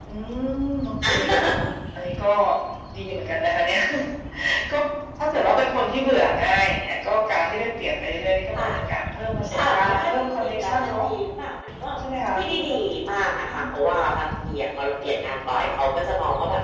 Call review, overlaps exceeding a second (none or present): present